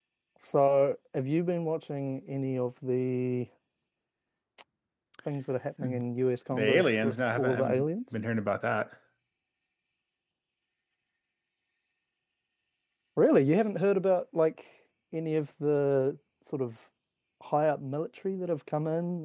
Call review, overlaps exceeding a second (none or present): present